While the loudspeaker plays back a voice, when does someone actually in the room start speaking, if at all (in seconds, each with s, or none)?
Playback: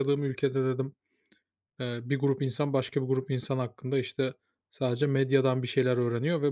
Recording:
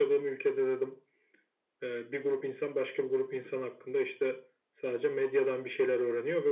none